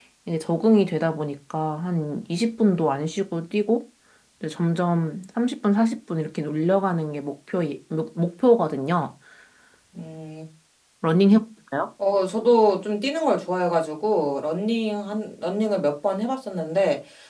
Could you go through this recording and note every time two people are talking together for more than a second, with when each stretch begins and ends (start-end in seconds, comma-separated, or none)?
none